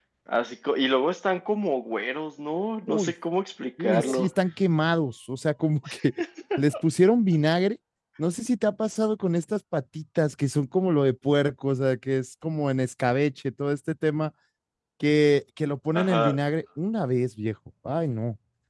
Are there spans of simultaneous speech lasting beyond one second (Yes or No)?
No